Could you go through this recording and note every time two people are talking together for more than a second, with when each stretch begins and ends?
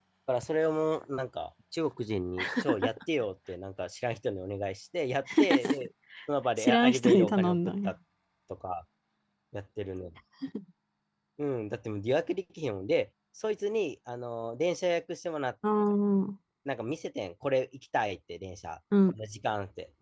6.6-7.9

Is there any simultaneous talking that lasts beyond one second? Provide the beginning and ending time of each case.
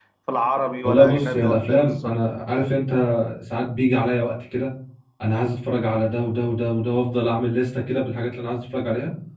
0.8-2.2

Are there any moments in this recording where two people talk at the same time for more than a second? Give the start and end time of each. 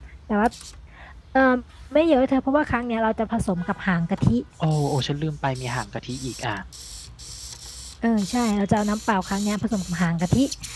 none

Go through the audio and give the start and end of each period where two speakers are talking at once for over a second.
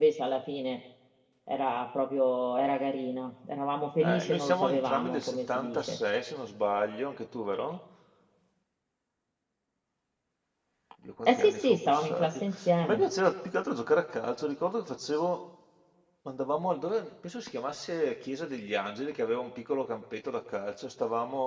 4.0-6.0, 11.3-13.0

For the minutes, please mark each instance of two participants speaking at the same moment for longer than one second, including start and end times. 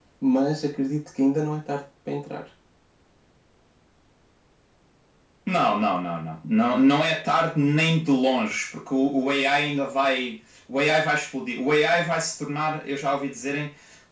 none

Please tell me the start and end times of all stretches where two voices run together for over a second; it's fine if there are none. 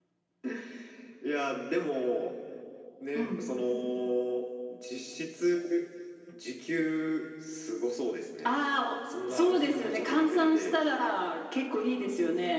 9.3-10.7

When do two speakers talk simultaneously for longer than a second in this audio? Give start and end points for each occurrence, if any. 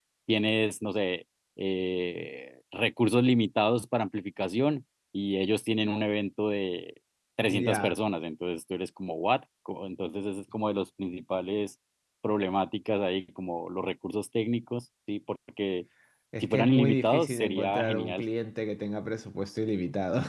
16.4-18.2

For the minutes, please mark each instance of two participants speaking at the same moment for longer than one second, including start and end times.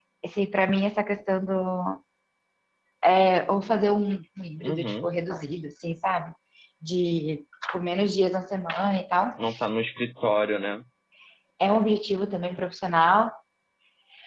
none

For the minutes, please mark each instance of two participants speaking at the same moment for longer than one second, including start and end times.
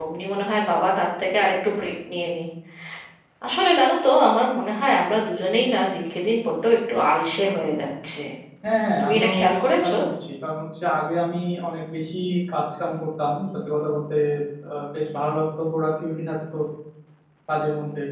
none

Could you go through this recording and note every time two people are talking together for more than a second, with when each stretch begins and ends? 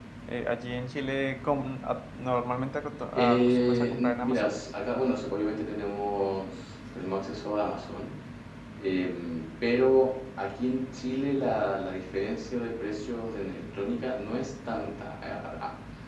3.1-4.5

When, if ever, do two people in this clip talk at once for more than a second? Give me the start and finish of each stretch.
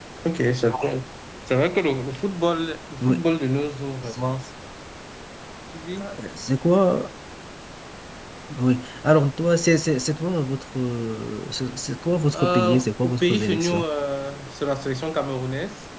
12.3-13.8

